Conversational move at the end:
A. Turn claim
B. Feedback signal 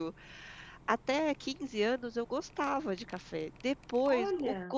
B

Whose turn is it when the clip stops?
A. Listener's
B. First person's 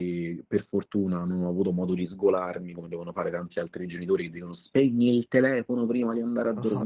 A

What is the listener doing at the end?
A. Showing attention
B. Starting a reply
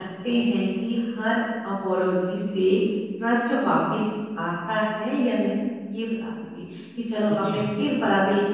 A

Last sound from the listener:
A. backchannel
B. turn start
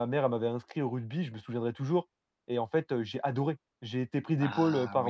A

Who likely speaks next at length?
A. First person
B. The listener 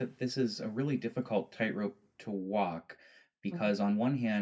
A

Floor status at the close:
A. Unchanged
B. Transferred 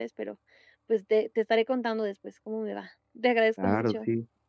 B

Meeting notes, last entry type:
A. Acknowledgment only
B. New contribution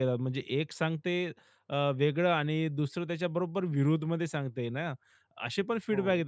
A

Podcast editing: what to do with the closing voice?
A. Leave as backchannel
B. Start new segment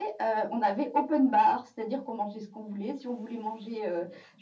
A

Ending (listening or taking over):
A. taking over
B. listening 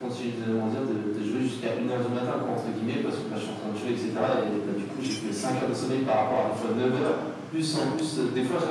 B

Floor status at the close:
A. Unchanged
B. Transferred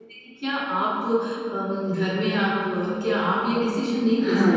B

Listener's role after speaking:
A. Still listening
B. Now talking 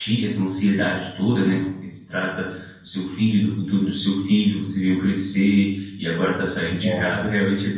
A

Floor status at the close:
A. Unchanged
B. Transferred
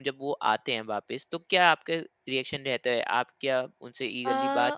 A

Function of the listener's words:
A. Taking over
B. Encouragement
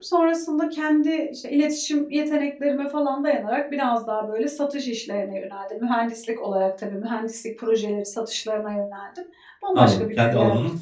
A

